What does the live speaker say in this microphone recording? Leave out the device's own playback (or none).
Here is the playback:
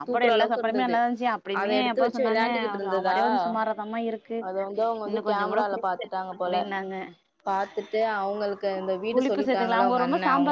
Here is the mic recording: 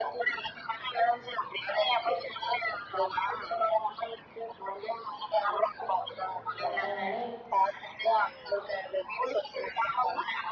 அதனால